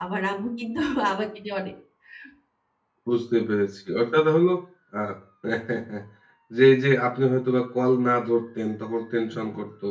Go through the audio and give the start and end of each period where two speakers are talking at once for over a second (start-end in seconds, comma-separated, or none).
none